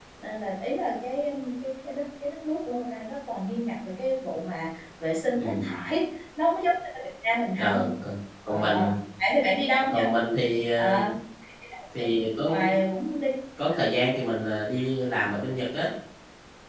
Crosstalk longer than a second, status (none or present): none